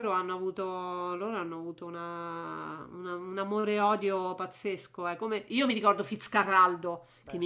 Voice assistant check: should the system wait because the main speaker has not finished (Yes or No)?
Yes